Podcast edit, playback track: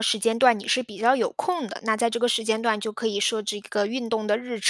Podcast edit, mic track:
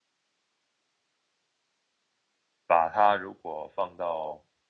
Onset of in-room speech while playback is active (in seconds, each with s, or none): 2.7 s